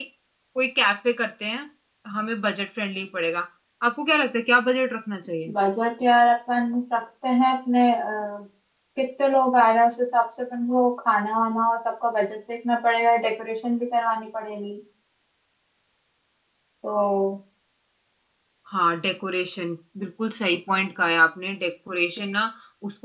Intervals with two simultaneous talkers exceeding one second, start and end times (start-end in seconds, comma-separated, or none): none